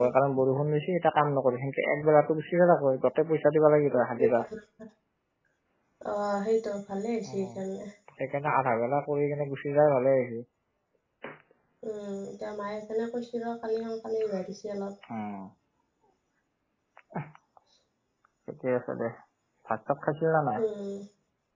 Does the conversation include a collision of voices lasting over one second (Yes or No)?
No